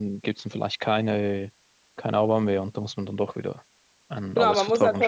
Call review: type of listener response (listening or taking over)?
taking over